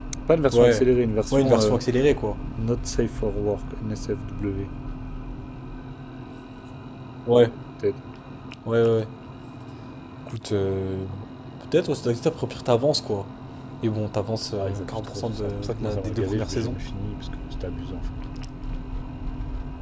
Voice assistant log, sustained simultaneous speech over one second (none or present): present